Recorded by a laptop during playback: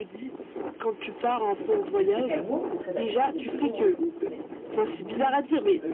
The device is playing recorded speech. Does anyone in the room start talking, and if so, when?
2 s

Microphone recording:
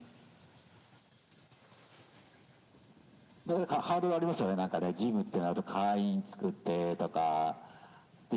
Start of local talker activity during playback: none

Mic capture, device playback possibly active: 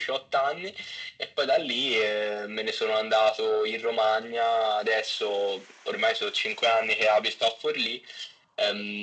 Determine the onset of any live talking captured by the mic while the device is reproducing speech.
none

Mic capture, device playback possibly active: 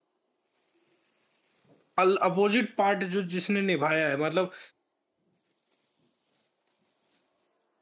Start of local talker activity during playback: 2 s

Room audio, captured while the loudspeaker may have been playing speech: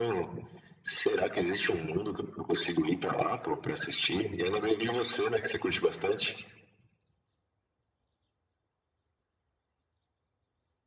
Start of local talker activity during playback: none

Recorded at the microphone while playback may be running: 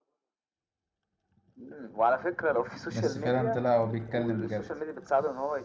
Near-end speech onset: 3 s

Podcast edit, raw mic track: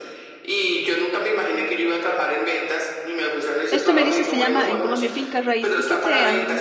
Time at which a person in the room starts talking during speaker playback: 4 s

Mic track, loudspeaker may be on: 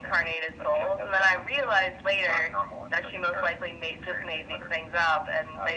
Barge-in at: none

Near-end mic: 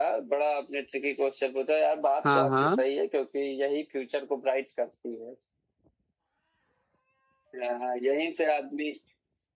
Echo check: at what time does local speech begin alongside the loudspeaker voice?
2 s

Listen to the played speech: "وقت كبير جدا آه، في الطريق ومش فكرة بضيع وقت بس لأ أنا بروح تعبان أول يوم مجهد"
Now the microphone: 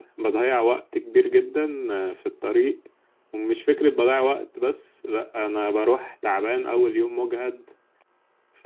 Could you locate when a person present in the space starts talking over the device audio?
none

